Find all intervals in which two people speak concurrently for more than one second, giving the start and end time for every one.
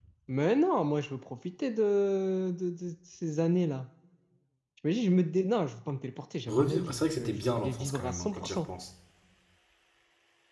6.5-8.6

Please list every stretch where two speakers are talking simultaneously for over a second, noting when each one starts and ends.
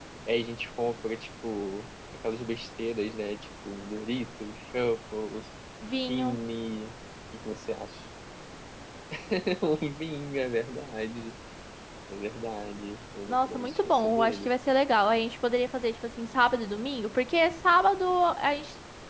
13.3-14.5

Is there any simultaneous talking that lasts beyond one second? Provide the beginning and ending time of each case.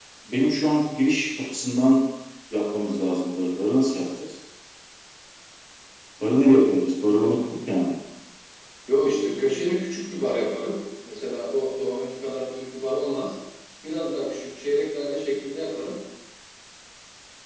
none

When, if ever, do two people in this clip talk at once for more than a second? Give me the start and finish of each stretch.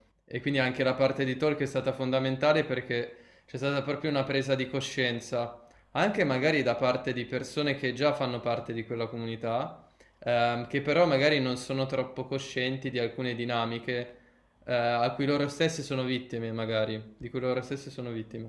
none

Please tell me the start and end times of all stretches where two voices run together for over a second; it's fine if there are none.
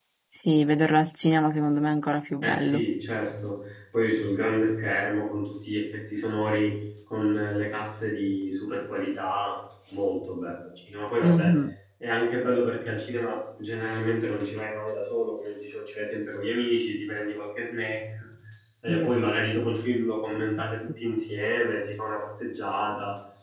none

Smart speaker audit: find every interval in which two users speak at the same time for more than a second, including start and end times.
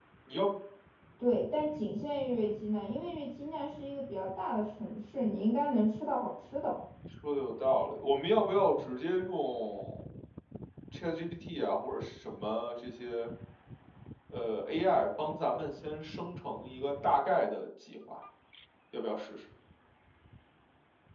none

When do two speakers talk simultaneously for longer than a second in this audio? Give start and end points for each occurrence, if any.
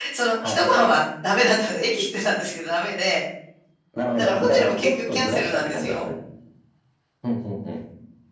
4.2-6.0

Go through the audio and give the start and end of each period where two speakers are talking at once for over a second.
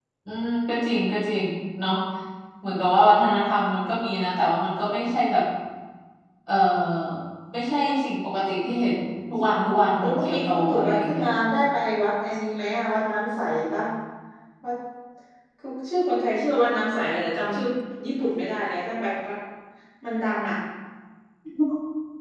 10.0-11.3

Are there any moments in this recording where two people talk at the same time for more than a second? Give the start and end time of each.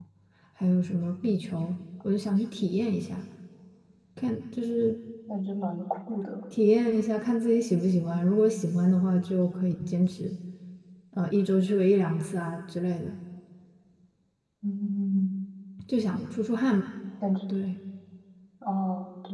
none

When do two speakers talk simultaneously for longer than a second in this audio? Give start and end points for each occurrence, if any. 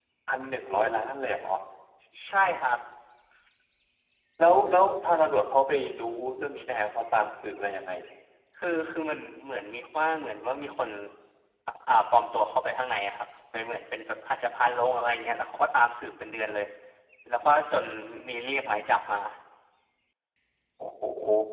none

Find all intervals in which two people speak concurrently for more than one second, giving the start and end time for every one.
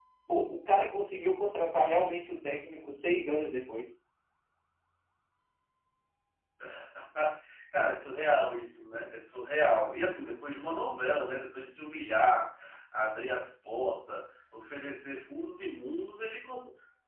none

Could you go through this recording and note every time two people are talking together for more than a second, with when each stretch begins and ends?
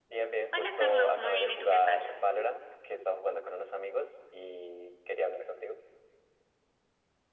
0.5-2.0

